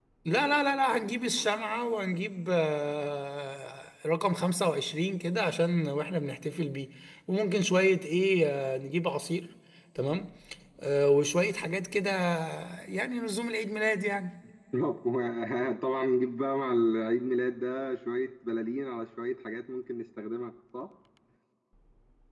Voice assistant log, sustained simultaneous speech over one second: none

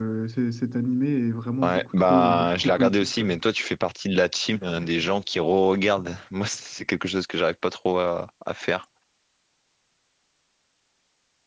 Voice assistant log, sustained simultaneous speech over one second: present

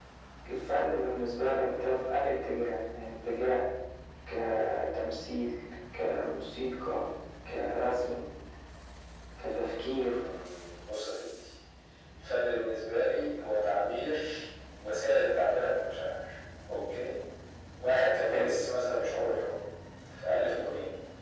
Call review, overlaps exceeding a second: none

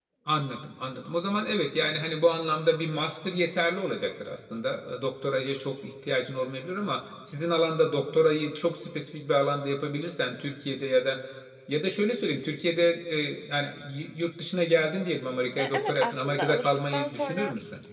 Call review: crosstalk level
present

